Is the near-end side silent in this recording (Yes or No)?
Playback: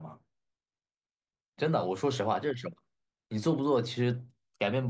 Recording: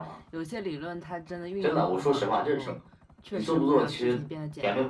No